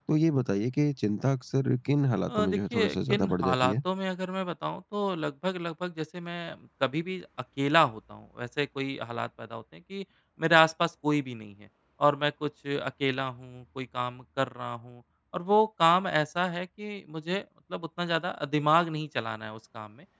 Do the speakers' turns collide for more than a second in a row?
Yes, from 2.3 s

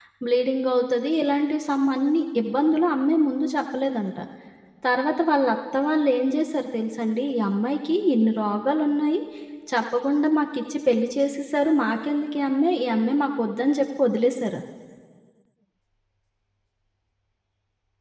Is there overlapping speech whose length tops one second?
No

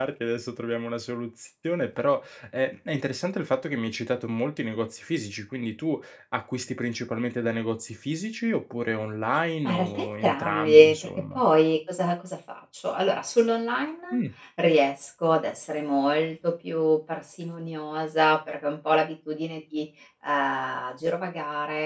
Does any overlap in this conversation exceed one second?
Yes, from 9.6 s

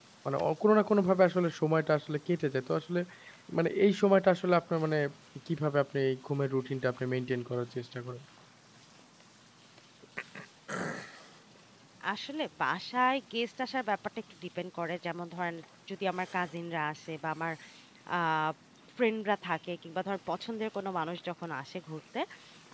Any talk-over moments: No

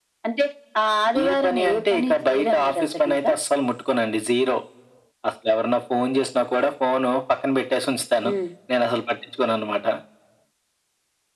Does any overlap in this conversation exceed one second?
Yes, from 1.2 s

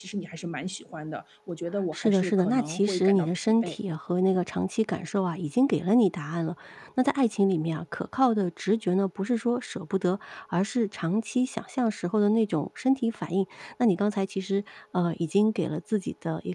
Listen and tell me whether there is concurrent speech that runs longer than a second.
Yes, from 1.9 s

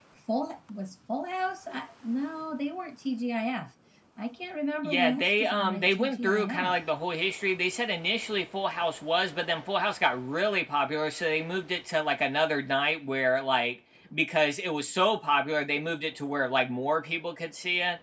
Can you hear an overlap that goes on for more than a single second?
Yes, from 4.8 s

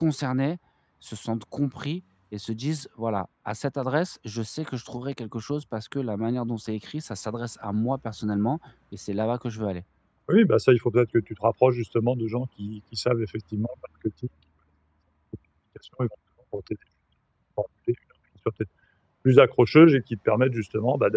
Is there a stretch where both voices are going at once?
No

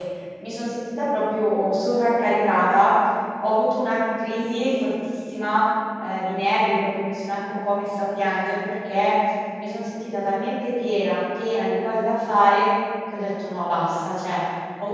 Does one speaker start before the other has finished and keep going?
No

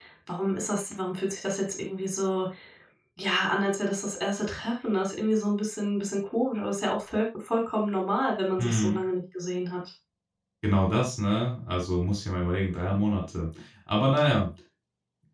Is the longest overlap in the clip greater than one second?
No

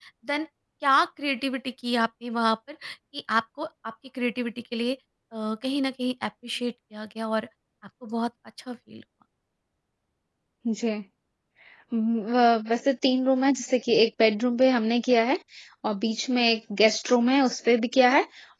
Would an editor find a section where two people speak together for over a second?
No

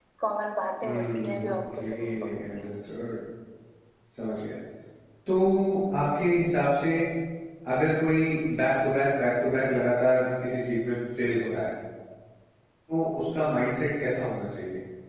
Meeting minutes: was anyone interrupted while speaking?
Yes, from 0.8 s

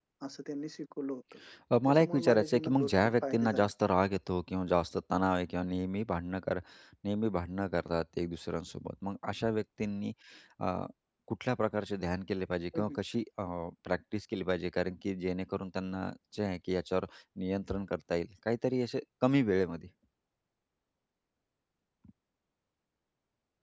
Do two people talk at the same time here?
Yes, from 1.7 s

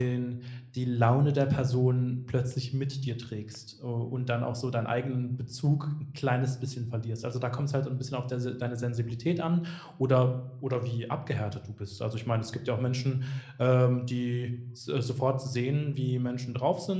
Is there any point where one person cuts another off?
No

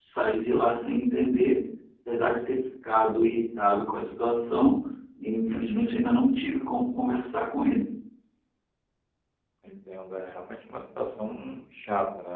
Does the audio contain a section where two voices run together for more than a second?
No

